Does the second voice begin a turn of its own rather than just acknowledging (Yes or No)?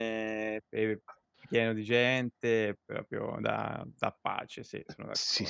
Yes